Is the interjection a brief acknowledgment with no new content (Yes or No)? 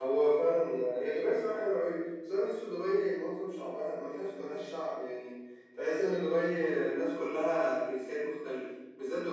Yes